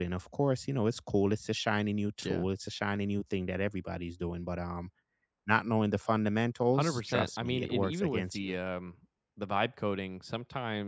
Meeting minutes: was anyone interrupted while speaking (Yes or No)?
Yes